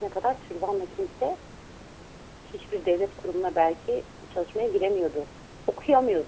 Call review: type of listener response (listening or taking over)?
listening